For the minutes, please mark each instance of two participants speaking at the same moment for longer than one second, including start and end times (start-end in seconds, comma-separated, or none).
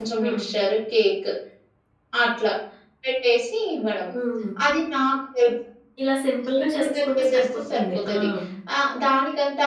6.6-8.1